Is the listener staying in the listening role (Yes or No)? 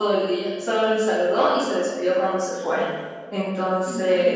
Yes